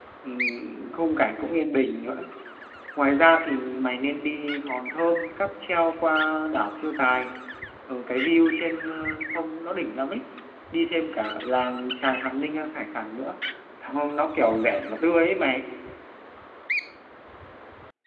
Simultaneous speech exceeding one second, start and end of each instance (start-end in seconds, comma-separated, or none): none